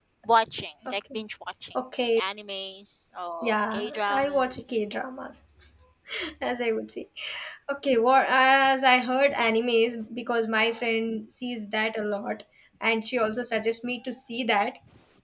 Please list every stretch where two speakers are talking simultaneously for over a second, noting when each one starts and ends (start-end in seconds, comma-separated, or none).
3.4-4.8